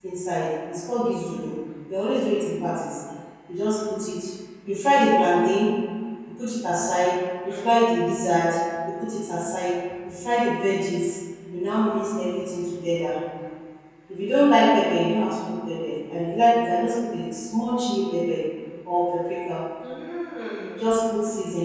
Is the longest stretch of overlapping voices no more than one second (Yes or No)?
Yes